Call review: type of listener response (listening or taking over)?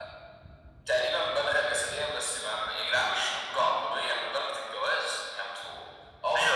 taking over